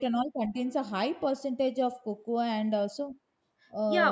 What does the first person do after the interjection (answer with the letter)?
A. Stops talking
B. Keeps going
A